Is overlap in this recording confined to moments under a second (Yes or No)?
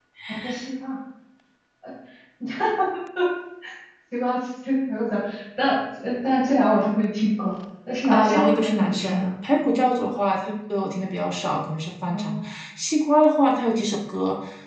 No